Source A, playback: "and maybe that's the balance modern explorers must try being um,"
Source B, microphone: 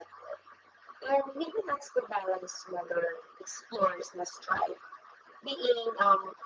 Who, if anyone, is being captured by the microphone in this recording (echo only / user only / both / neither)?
echo only